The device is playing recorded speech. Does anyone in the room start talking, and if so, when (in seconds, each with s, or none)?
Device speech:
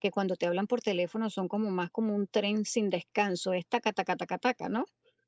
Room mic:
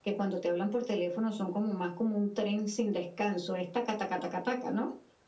none